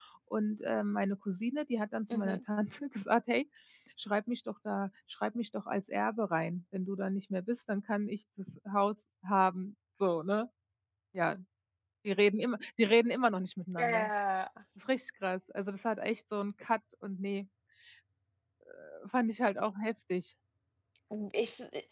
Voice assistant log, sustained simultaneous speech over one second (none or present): none